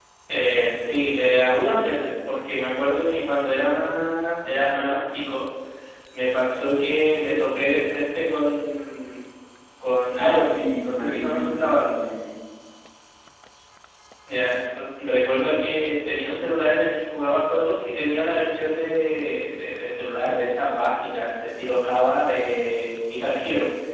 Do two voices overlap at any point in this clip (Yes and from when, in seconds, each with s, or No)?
Yes, from 10.2 s